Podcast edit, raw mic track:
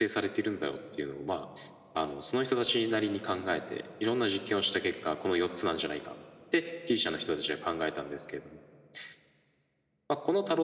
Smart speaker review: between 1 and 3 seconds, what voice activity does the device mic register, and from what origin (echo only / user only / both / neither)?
user only